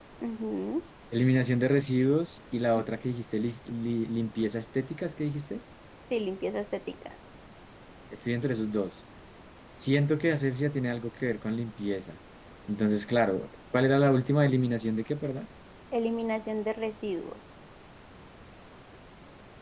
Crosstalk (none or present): none